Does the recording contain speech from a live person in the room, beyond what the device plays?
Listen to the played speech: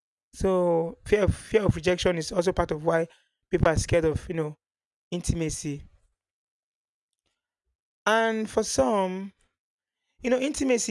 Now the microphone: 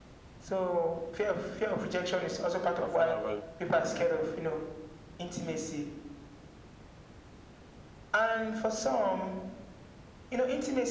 Yes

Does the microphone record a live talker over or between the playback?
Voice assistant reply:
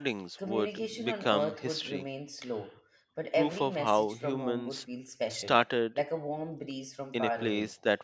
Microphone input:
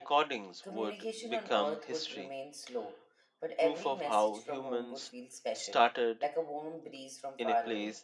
No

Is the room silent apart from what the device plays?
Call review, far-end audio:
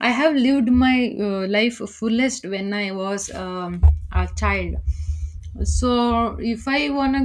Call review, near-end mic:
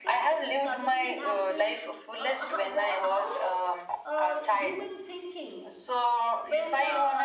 No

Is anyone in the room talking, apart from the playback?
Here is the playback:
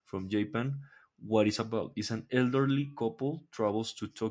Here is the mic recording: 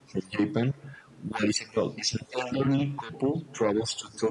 No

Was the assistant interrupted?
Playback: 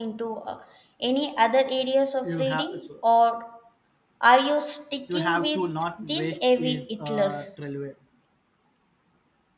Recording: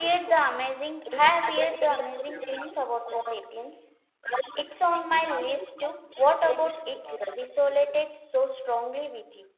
Yes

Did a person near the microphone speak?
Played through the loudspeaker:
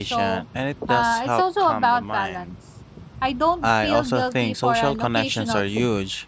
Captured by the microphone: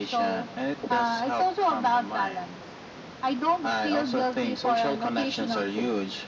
No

